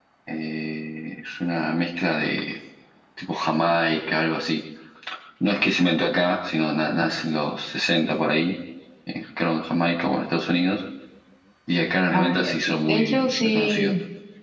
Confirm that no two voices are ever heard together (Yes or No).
No